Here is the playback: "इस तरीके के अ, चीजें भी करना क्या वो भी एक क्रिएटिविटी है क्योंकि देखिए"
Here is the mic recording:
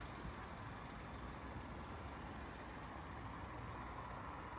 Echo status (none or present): none